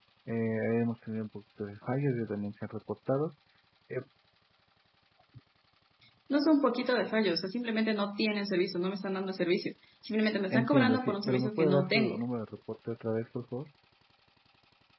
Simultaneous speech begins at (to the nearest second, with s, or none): 11 s